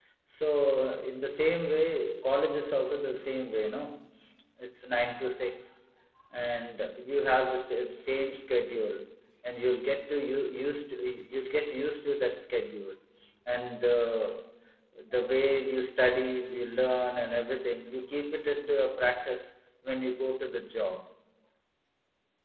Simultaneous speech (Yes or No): No